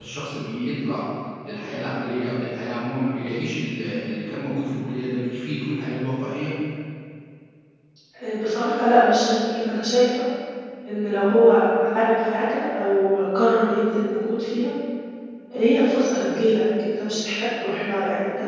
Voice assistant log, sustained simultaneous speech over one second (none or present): none